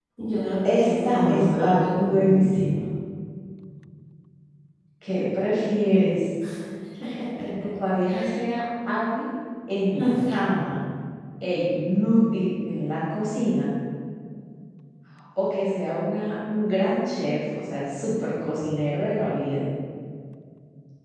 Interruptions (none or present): present